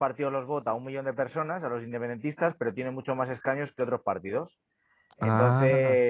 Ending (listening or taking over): listening